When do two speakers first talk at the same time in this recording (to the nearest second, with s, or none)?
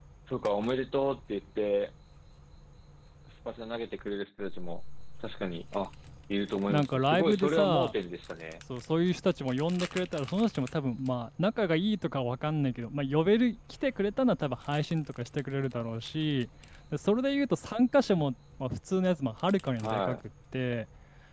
7 s